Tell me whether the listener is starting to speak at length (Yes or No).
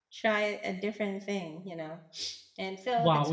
Yes